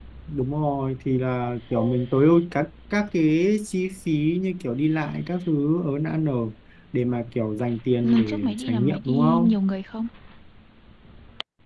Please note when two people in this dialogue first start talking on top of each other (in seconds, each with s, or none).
8.0 s